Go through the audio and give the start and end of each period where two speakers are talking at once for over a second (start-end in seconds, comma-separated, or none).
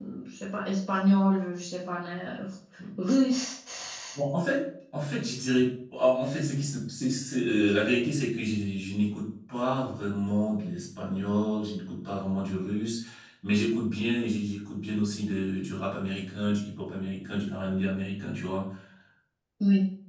none